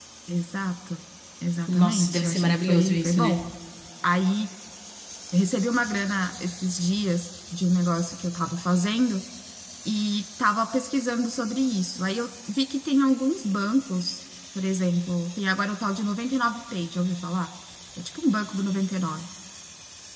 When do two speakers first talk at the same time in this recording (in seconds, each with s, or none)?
1.7 s